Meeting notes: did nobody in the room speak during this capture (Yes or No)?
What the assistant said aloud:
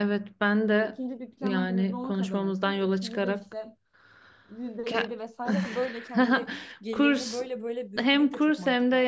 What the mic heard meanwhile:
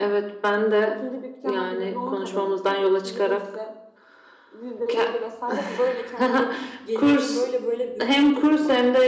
Yes